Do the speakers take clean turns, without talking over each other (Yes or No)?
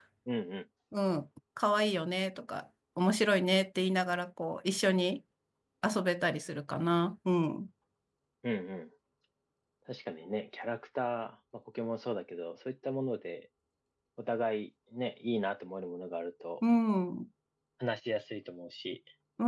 Yes